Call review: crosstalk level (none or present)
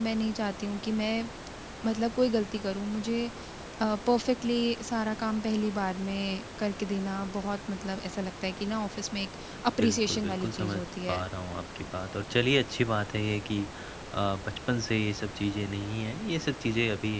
present